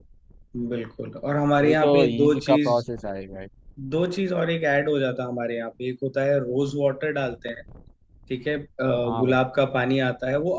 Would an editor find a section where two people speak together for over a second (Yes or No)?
Yes